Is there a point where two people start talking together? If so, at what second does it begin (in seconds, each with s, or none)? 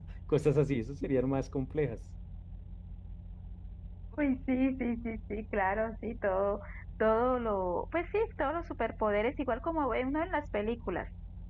none